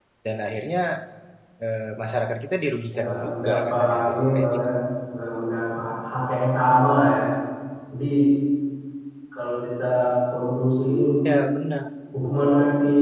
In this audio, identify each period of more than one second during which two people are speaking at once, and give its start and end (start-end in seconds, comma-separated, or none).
2.9-4.7